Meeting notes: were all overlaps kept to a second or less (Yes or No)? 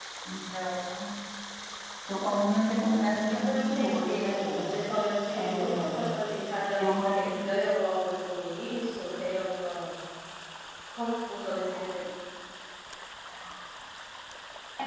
No